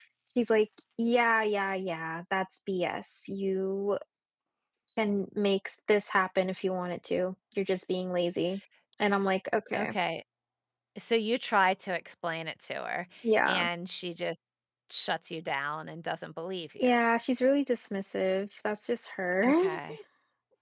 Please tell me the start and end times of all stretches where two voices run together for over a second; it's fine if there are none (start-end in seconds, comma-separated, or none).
none